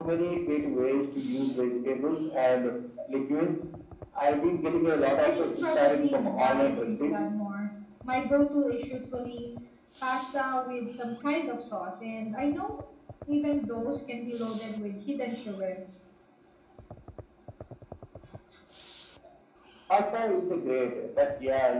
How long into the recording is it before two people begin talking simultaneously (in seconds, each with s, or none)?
5.2 s